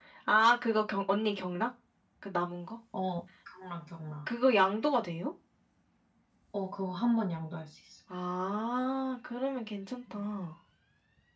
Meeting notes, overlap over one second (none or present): none